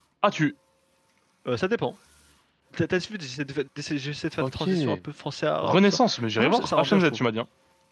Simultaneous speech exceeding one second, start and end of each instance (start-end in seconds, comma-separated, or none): 5.6-7.2